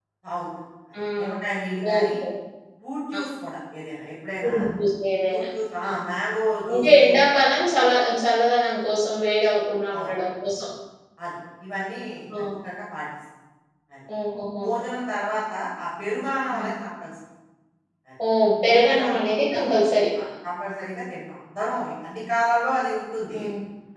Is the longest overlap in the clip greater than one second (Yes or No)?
No